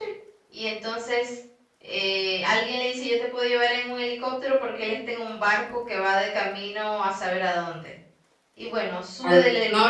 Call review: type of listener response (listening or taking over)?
taking over